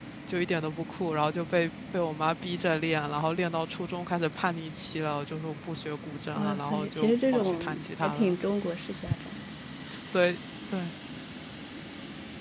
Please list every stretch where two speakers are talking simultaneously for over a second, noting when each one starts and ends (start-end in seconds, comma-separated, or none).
6.3-8.4